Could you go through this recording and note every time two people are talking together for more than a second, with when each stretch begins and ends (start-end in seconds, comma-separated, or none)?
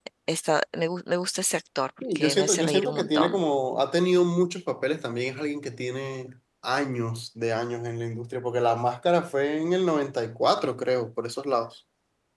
2.1-3.4